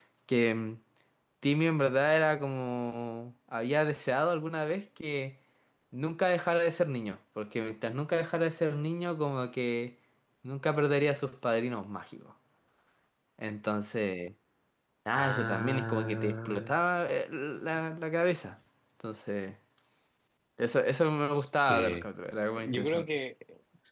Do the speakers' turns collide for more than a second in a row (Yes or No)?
Yes